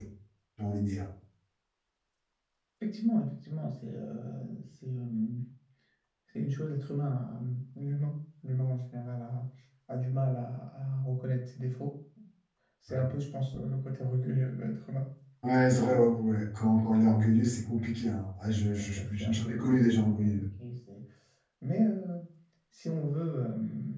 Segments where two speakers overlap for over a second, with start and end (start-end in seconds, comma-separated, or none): 18.8-20.5